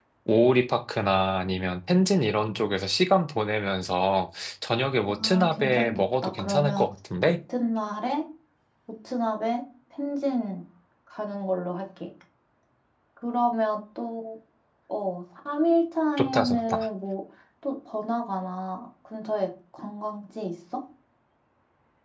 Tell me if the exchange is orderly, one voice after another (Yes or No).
No